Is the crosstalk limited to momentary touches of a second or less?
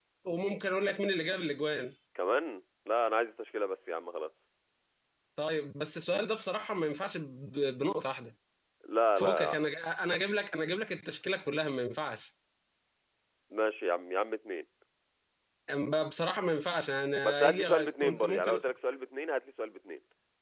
No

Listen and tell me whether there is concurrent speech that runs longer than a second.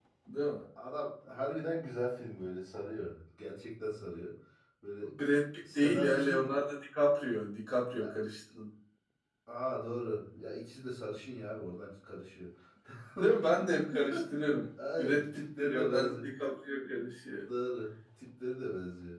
Yes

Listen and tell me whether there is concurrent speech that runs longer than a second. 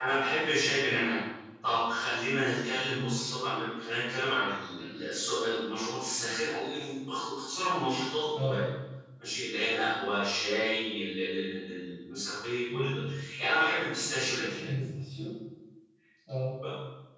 No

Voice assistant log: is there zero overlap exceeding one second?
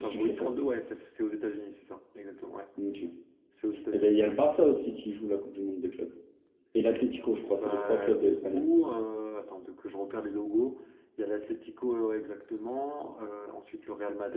No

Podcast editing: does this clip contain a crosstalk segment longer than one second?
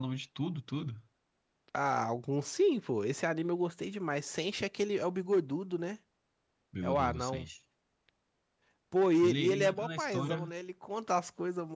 Yes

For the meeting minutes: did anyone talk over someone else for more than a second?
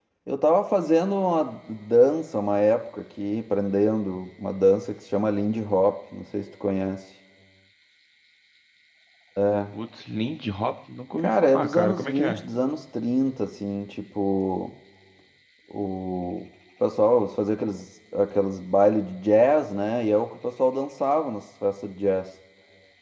Yes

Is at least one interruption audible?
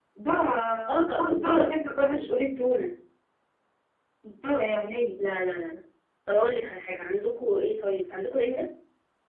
Yes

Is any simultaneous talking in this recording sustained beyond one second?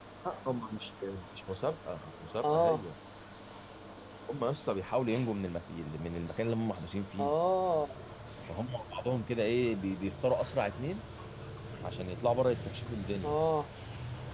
No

